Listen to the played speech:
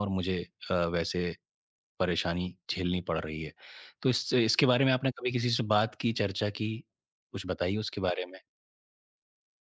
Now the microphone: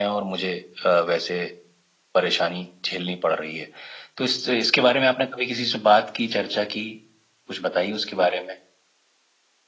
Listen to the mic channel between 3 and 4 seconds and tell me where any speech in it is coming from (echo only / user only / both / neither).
echo only